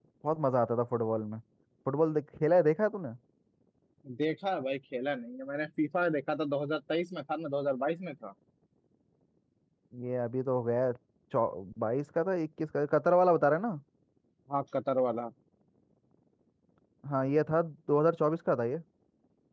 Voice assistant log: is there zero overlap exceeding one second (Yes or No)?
Yes